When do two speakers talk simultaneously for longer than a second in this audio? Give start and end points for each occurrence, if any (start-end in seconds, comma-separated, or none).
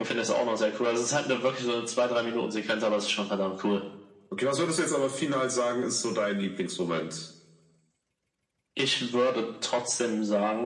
none